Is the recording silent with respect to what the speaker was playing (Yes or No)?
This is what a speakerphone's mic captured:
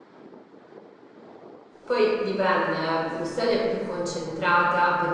Yes